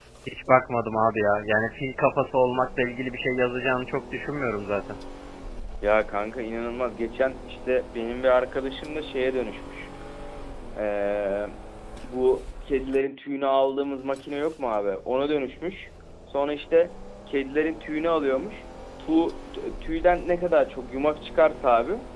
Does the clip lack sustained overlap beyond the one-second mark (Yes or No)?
Yes